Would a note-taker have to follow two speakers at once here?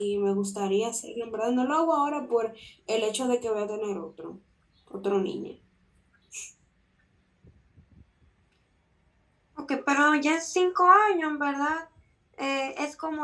No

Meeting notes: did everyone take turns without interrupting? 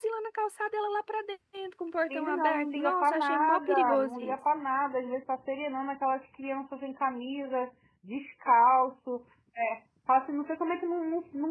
No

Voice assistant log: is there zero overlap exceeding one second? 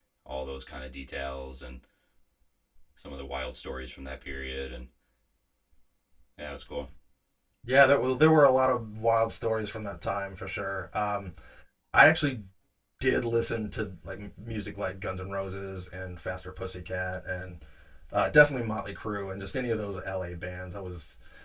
Yes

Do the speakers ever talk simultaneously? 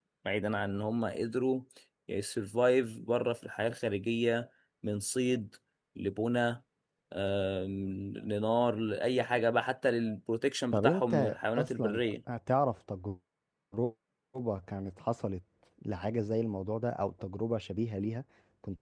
Yes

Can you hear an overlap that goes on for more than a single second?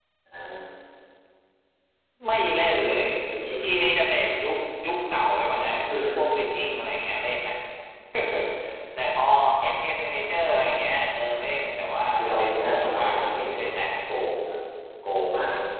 Yes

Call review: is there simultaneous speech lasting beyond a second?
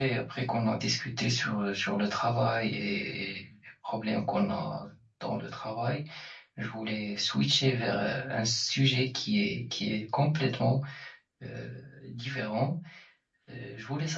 No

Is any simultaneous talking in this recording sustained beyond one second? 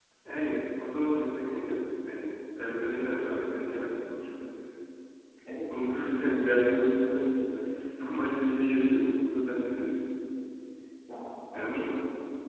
No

